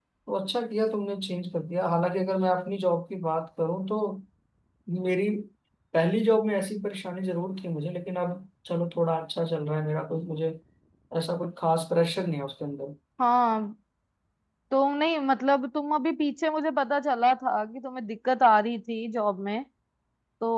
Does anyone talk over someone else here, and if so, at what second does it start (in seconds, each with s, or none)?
none